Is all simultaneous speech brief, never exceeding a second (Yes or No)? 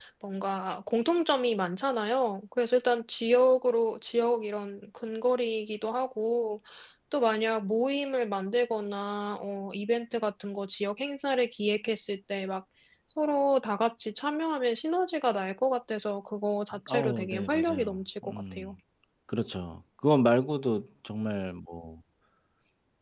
No